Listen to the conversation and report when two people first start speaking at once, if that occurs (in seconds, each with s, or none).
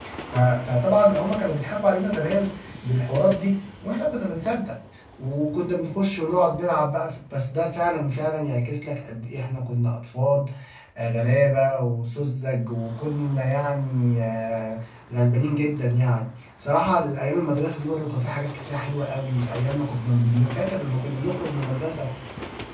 none